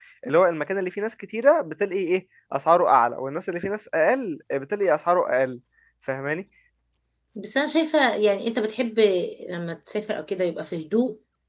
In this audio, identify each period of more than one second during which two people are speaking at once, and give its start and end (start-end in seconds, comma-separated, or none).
none